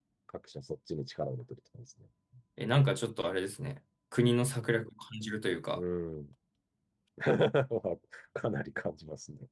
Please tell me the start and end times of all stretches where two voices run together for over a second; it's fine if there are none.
none

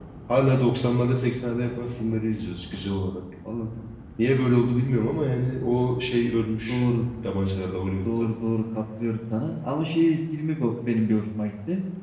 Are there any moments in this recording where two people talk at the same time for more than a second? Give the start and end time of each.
none

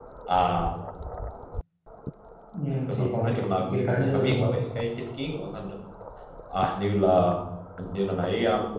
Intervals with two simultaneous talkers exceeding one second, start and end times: 2.9-4.6

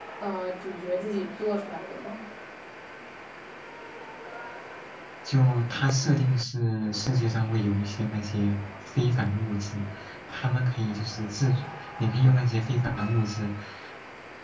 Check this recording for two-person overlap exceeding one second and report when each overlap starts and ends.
none

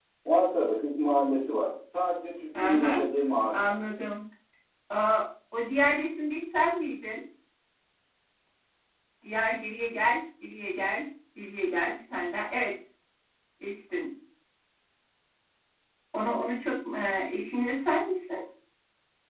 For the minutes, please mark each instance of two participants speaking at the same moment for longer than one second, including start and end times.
none

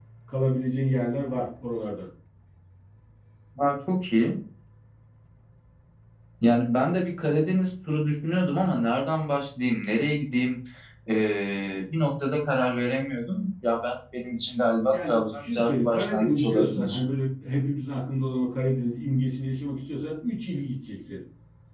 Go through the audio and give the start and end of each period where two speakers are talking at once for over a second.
14.9-17.0

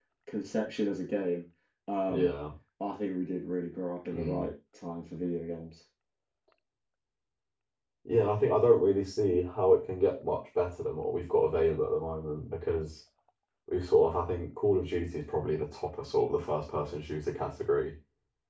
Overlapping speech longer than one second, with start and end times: none

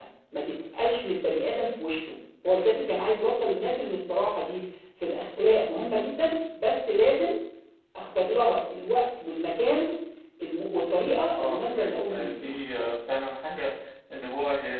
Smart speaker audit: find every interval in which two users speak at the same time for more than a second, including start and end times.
11.4-12.6

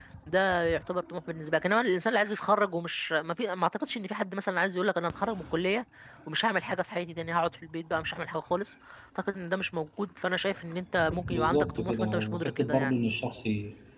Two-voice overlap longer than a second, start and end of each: 11.3-12.9

